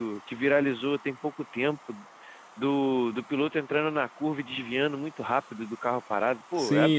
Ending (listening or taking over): taking over